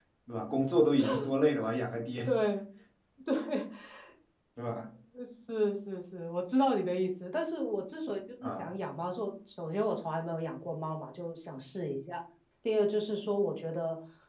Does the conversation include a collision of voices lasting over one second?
No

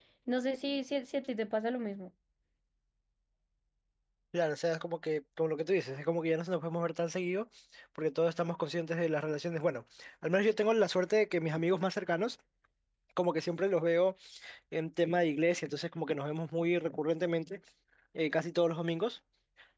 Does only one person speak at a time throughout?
Yes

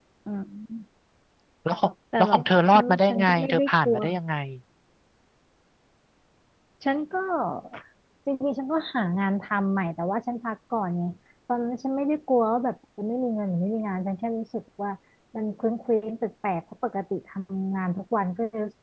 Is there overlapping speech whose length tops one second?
Yes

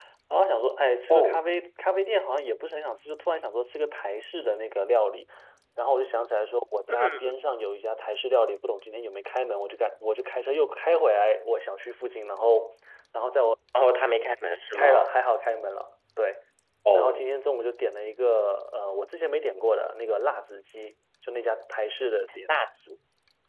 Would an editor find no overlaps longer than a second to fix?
Yes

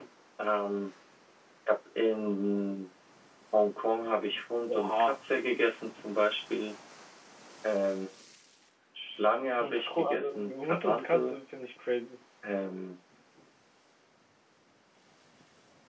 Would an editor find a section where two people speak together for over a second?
Yes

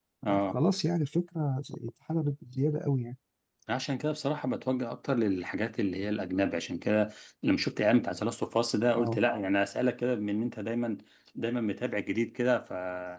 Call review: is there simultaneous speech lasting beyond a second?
No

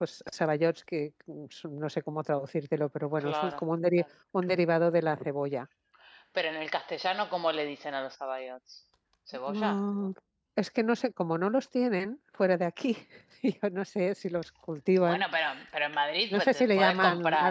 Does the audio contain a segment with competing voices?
Yes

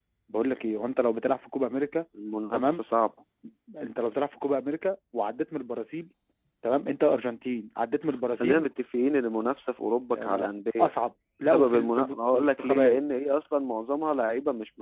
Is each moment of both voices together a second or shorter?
No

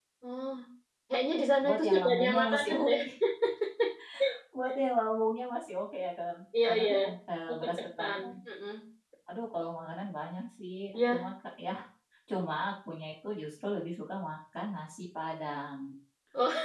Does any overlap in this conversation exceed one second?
Yes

